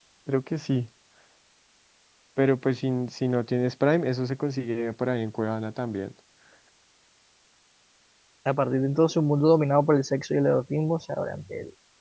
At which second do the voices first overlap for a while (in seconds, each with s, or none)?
none